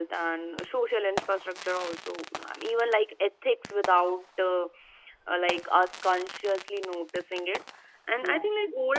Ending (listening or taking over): listening